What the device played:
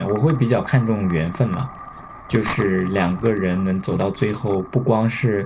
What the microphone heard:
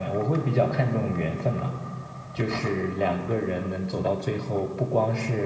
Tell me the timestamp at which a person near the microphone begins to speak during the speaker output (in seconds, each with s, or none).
none